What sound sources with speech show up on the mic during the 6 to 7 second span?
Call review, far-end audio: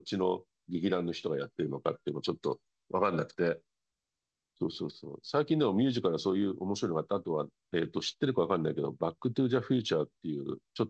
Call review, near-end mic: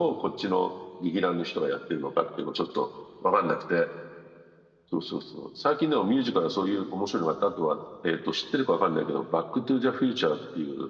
echo only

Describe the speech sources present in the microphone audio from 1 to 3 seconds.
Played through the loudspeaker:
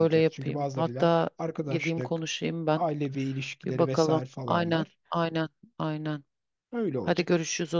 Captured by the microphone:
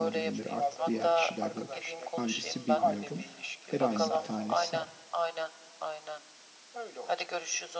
both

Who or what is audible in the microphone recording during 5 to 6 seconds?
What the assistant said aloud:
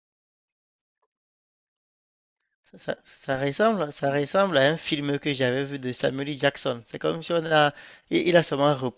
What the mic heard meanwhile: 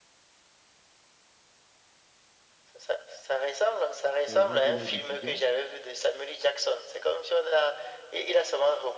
both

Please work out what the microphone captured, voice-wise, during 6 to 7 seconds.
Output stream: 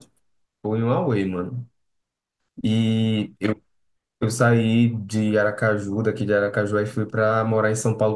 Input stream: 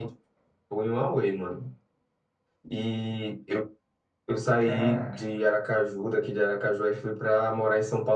echo only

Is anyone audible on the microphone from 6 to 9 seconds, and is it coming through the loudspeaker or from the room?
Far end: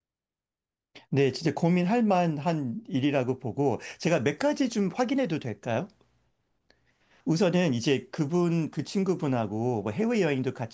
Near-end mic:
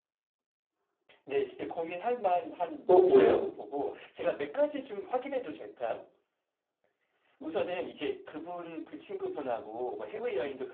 echo only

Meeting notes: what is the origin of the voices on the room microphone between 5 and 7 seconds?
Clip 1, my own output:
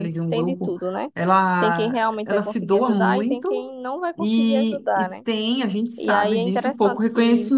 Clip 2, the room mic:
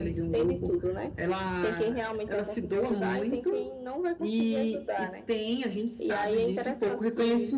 echo only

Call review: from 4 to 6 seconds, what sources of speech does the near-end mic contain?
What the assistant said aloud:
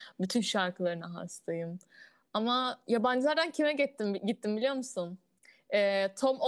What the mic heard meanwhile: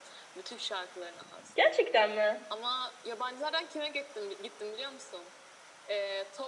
echo only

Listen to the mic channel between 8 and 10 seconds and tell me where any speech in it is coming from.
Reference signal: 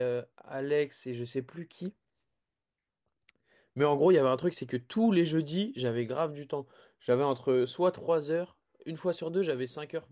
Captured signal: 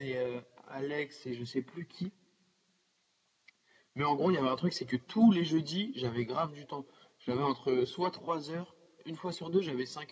echo only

